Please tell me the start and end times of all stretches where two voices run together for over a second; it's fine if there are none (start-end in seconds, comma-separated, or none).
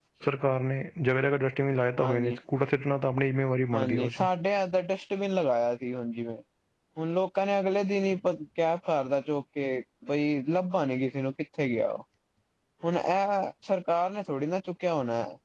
none